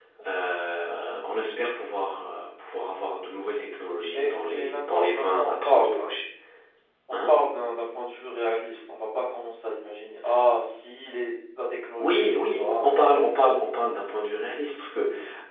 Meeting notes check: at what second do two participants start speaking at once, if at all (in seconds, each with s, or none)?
4.1 s